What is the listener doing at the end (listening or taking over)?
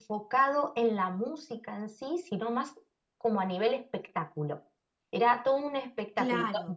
listening